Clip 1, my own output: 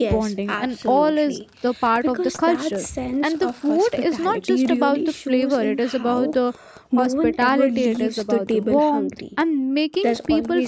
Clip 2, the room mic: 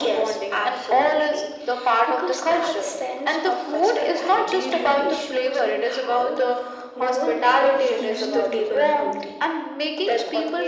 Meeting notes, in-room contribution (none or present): present